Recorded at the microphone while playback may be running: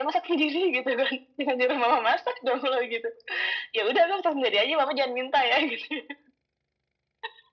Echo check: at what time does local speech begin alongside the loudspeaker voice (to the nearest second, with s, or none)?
none